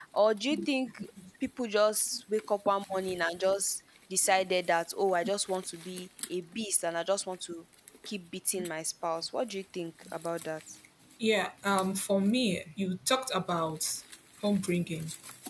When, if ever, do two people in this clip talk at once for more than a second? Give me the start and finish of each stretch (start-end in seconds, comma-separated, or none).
none